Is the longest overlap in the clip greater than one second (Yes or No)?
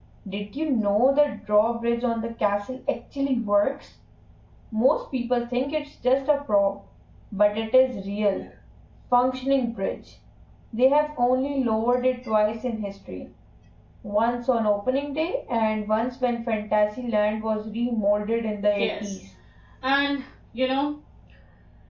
No